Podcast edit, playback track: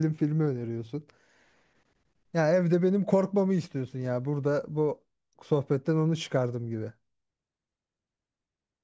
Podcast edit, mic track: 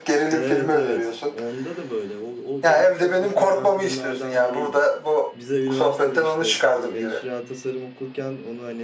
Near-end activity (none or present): present